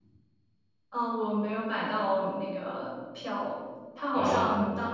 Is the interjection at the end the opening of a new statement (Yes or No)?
No